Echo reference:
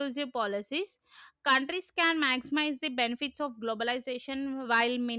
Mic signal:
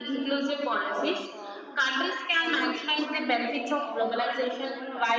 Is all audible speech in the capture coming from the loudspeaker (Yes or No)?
No